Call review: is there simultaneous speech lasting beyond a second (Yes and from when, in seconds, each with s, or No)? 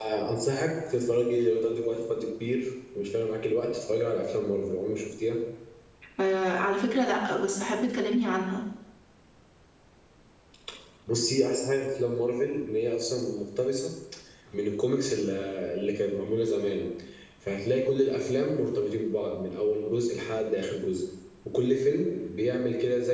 No